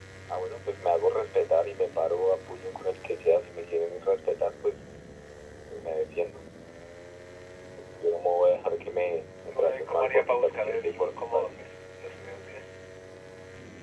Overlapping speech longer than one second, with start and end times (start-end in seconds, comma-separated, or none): 9.5-11.5